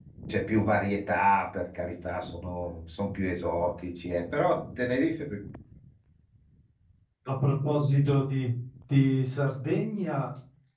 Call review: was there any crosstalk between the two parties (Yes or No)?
No